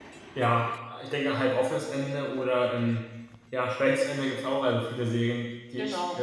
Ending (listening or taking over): listening